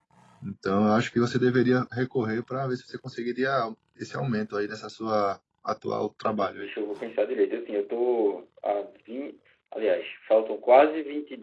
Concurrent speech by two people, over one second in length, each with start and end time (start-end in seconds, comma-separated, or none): none